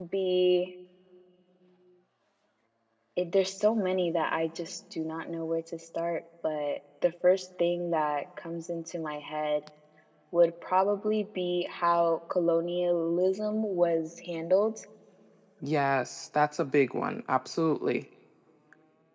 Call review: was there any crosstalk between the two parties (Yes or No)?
No